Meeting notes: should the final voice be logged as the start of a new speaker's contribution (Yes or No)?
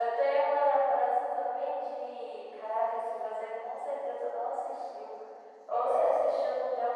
No